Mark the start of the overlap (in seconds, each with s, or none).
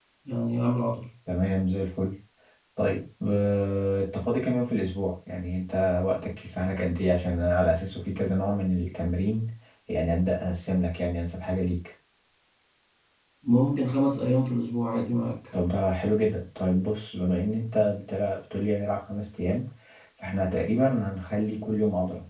none